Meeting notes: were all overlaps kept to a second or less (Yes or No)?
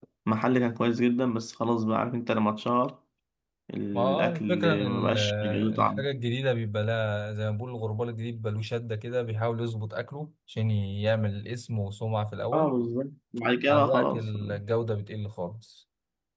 No